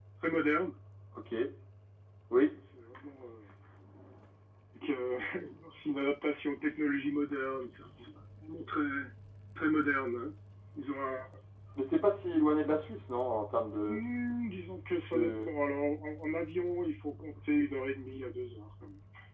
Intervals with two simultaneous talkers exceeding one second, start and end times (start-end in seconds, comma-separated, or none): none